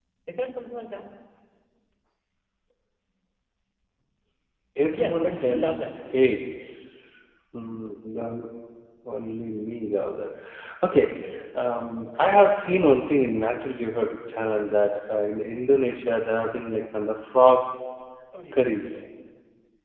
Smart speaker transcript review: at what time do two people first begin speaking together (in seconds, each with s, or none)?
4.9 s